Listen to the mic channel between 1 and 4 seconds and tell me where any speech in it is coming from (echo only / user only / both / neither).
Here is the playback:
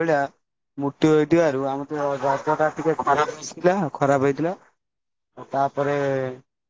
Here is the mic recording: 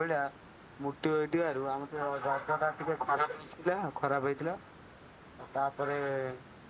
echo only